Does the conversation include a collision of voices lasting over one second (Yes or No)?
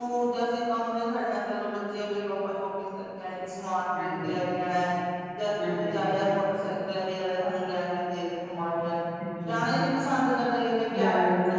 No